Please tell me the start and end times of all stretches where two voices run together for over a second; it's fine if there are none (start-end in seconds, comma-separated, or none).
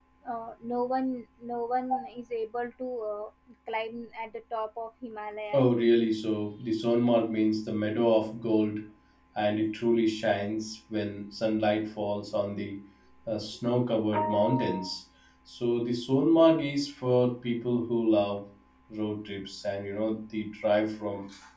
none